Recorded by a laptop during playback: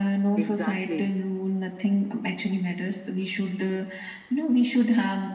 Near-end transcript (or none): Exactly.